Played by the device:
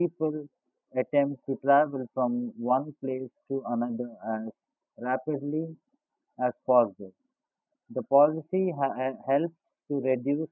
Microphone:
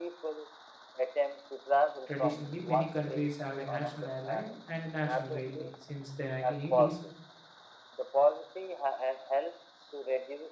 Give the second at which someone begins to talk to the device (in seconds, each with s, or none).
2.0 s